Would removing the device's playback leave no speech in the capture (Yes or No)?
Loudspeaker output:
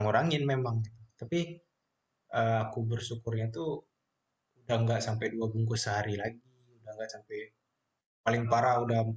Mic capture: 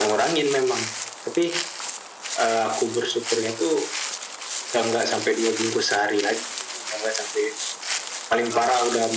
Yes